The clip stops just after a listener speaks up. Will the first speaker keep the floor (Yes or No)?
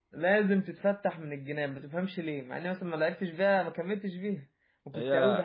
Yes